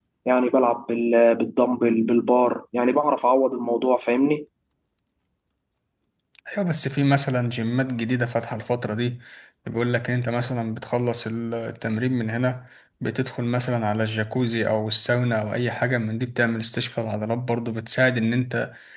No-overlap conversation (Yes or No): Yes